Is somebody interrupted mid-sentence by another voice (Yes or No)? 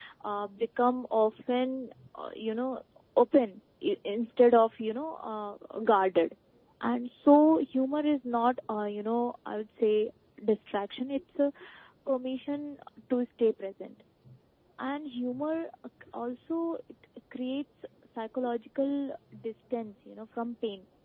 No